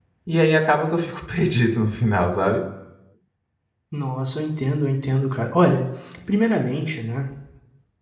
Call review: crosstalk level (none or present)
none